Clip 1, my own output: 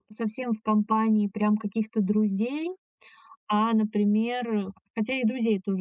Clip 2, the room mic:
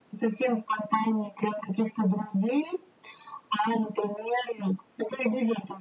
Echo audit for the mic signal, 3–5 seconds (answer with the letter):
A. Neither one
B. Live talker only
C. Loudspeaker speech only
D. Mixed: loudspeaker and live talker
C